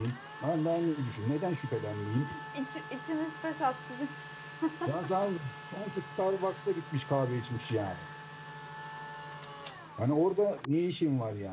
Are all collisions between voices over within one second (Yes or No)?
Yes